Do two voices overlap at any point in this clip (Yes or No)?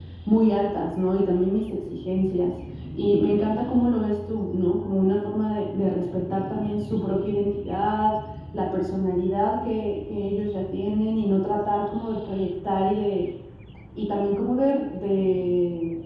No